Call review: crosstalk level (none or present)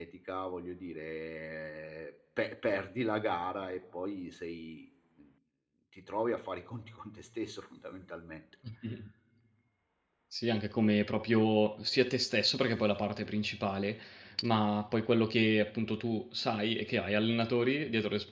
none